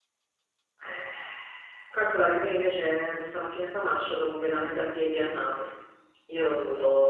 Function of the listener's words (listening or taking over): listening